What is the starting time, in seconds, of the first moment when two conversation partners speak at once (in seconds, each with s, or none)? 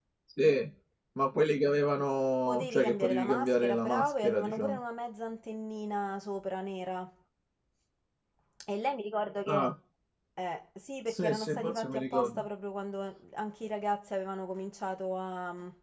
2.5 s